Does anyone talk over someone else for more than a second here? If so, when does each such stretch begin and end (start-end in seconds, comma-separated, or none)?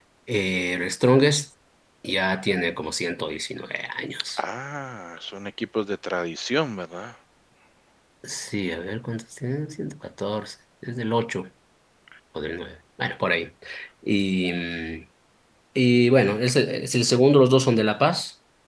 none